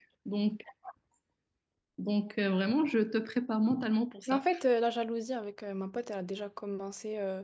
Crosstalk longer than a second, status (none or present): none